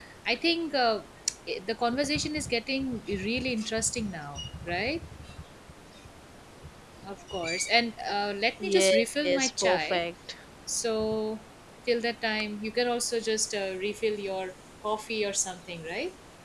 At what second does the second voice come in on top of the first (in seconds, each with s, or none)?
8.6 s